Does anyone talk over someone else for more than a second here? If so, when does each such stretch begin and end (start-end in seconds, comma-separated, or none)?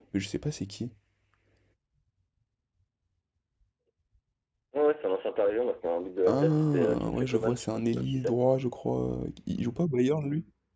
6.2-8.4